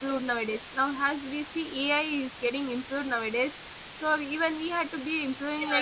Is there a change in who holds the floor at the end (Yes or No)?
Yes